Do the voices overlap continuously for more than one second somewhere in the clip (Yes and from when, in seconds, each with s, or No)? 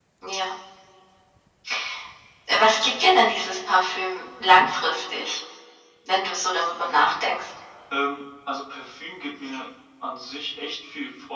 No